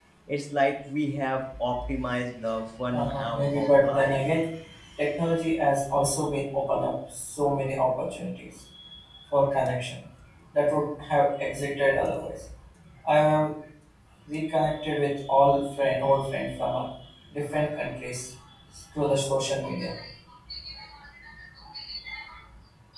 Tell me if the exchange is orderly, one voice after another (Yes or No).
No